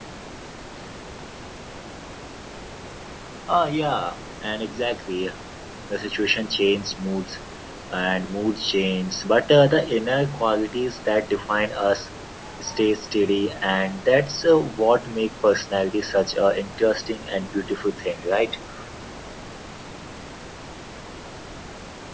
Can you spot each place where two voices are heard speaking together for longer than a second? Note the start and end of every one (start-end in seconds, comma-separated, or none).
none